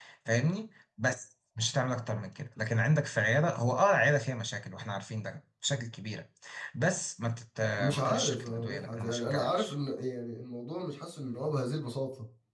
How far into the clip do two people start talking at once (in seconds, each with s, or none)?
7.8 s